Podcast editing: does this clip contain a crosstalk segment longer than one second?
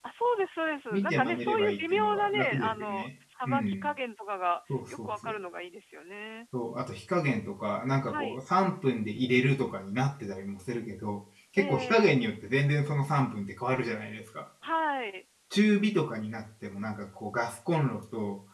Yes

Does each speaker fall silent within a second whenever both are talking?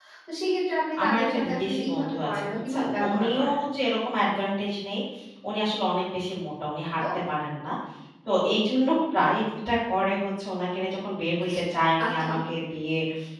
No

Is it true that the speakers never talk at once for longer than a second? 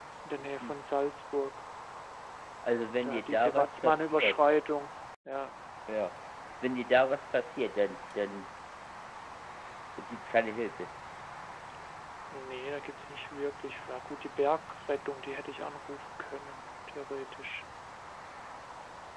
No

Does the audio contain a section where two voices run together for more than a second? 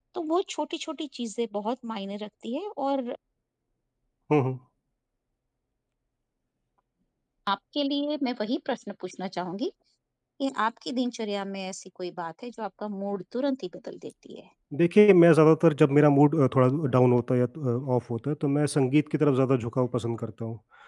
No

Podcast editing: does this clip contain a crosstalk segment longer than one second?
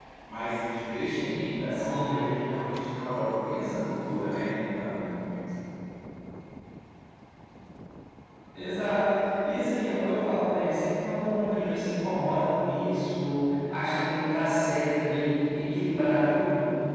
No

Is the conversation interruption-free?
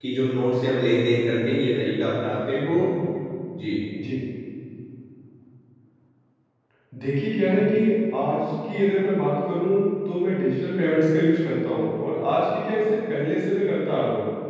Yes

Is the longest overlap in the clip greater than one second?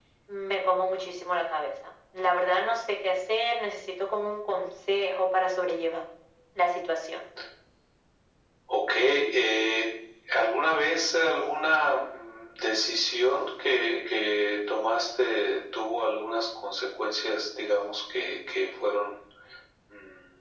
No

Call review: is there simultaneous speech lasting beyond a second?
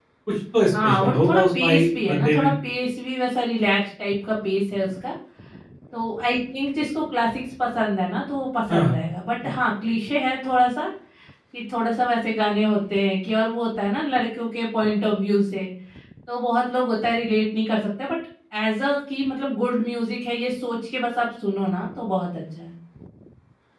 Yes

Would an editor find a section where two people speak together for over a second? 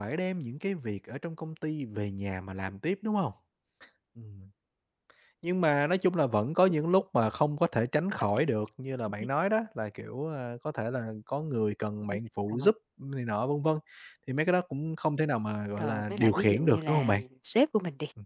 Yes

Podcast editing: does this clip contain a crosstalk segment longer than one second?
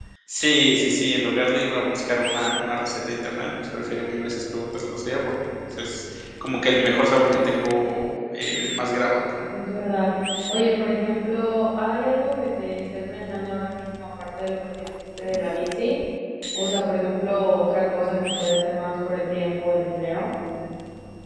No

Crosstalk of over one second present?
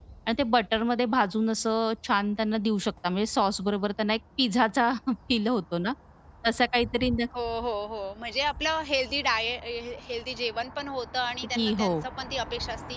No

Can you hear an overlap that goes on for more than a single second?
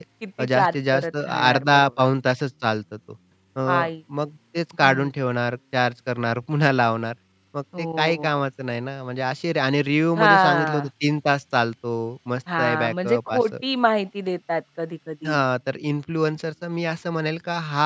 Yes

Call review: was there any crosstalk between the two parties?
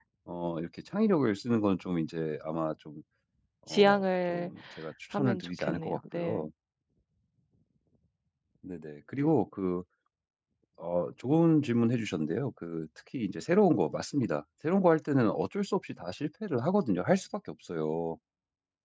Yes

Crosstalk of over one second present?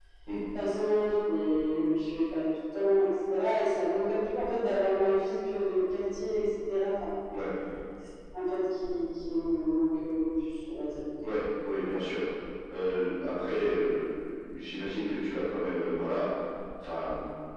No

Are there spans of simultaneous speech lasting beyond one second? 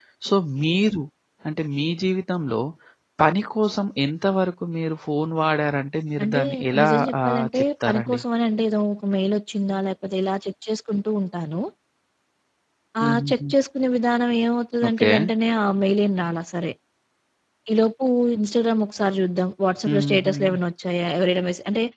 Yes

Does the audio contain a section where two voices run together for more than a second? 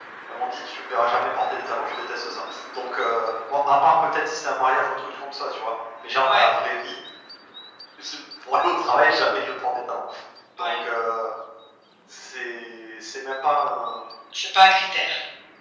No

